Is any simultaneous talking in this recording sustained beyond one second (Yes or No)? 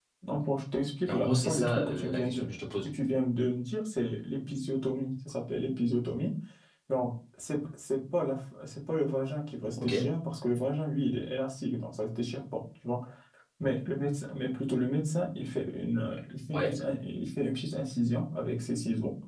Yes